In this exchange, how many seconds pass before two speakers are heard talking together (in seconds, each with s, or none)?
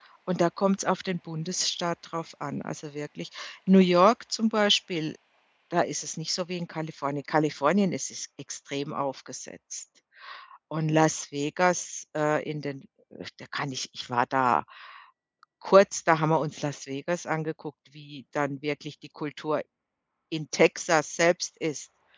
none